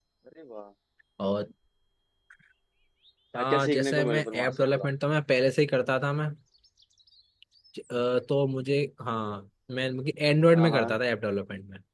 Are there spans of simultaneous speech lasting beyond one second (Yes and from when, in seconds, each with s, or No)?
Yes, from 3.4 s